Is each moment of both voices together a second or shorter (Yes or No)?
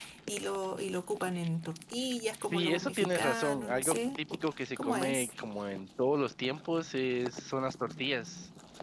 No